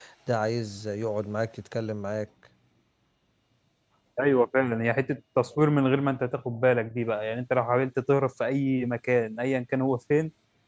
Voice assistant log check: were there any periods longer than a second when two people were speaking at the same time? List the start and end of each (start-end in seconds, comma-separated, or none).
none